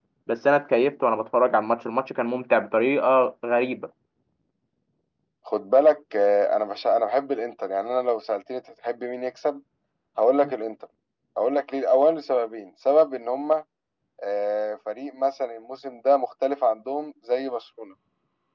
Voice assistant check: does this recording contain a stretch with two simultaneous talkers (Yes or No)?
No